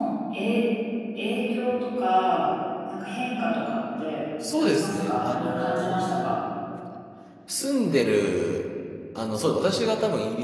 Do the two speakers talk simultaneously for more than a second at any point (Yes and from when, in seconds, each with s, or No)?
Yes, from 4.4 s